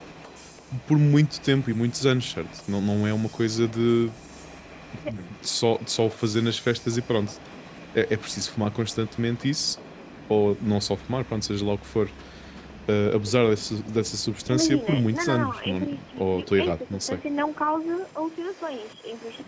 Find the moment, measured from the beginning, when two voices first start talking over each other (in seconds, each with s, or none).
14.5 s